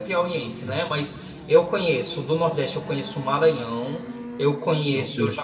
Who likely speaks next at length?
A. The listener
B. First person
B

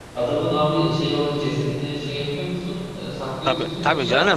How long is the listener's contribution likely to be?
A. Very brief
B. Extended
B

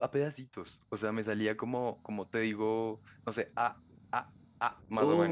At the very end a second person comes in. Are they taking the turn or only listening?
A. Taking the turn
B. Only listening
A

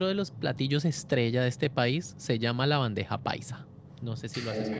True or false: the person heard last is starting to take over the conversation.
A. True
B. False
A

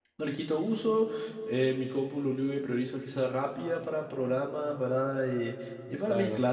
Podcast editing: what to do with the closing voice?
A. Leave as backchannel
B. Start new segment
A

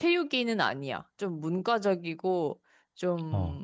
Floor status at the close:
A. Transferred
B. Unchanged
B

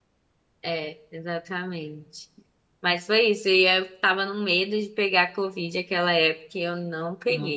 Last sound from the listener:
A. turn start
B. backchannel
B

